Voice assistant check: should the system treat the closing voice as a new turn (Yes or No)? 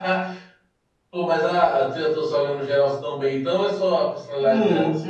Yes